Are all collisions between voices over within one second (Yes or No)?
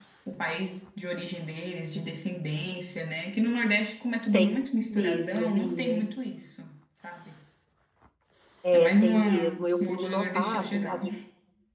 No